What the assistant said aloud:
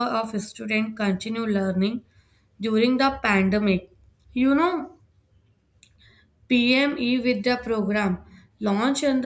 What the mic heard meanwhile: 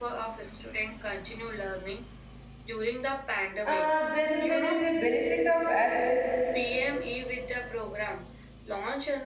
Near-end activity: present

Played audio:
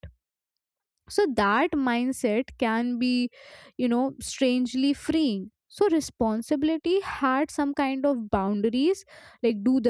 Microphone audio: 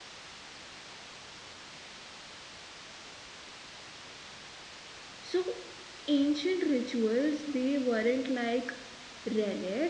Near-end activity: present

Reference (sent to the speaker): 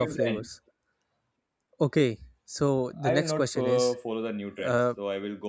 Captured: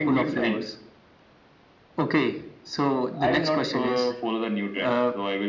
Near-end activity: none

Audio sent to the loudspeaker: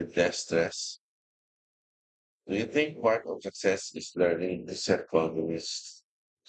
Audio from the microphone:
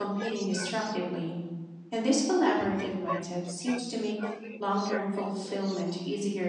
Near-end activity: present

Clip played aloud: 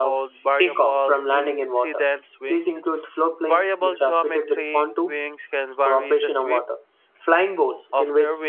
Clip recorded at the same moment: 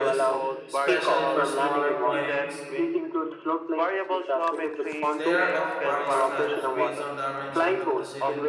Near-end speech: present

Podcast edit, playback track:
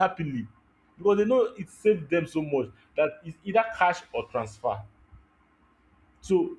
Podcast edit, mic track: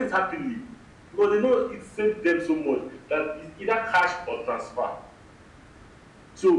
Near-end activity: none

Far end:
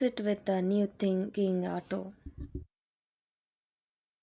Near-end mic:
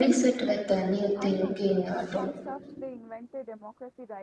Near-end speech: present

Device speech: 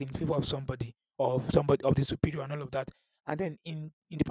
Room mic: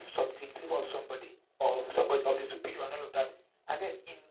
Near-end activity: none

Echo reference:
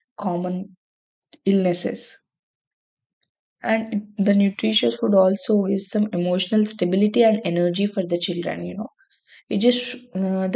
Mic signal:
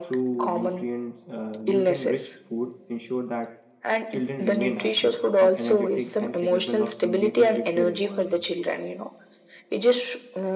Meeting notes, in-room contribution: present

